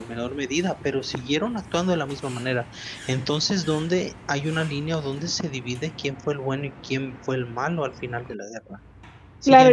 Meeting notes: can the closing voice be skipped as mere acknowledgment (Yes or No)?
No